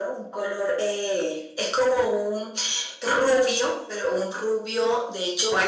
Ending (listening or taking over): taking over